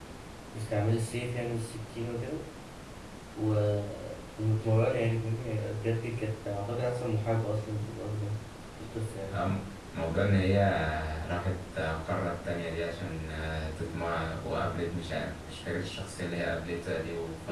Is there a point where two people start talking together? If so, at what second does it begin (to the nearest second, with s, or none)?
none